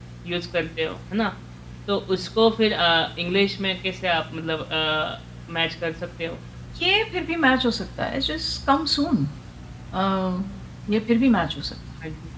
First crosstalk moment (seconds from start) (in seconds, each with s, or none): none